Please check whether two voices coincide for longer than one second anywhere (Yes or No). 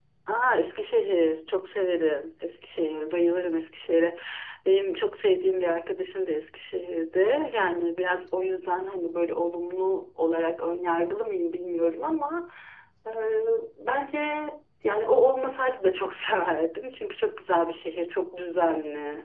No